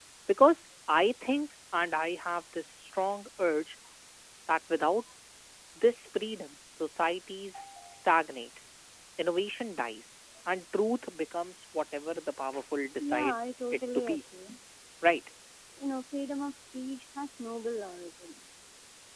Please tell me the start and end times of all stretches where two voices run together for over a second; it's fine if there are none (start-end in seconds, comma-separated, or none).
13.0-14.2